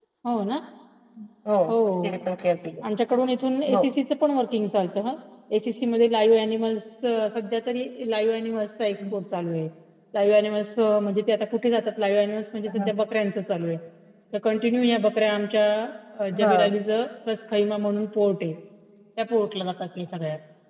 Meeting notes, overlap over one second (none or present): none